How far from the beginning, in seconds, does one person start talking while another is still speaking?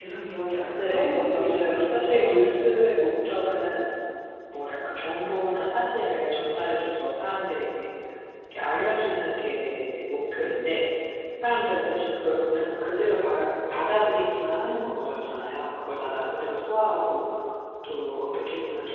0.8 s

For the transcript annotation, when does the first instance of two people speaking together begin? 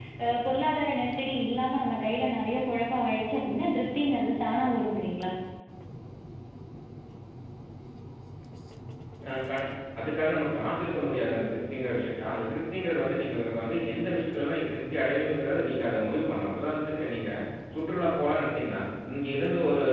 none

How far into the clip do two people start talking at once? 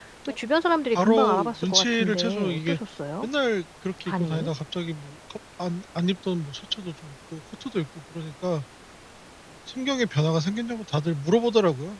0.9 s

